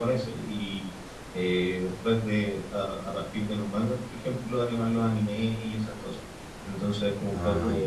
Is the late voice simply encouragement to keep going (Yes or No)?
Yes